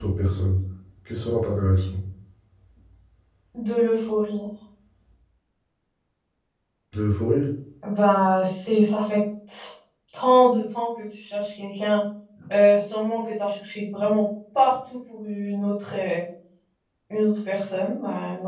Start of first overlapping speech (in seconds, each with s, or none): none